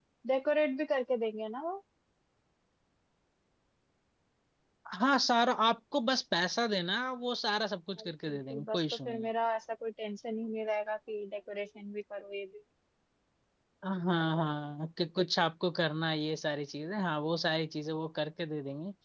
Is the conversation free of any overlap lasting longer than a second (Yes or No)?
No